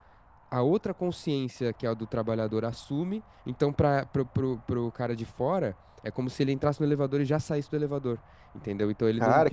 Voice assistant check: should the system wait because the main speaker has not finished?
No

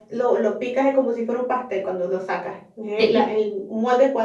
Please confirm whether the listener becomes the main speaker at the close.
No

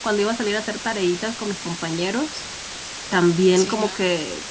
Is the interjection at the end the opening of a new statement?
No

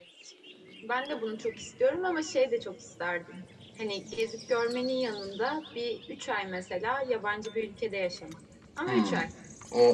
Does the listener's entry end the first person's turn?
Yes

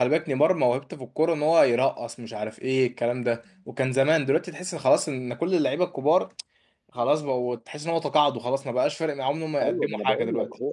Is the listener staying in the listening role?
No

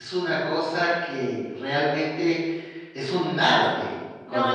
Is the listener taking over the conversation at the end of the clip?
Yes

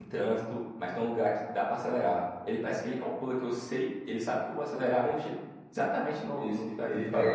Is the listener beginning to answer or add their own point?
Yes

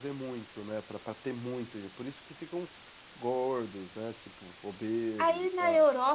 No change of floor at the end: No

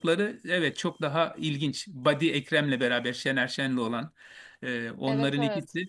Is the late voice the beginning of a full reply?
No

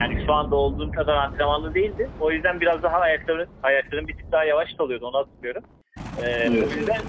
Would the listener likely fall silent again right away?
Yes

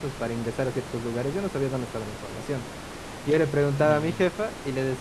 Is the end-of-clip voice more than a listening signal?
No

